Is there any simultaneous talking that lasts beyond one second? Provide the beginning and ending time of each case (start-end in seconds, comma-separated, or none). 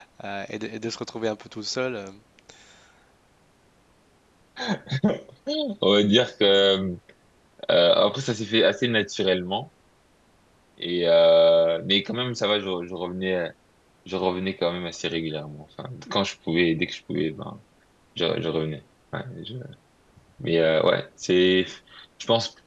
none